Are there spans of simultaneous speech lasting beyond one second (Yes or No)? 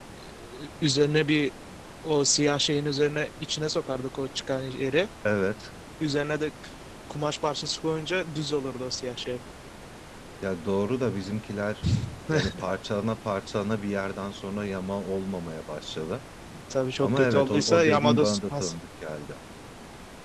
Yes